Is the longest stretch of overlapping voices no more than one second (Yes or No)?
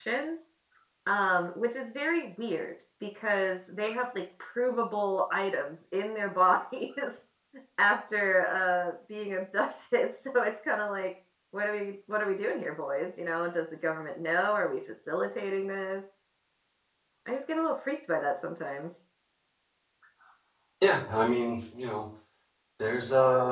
Yes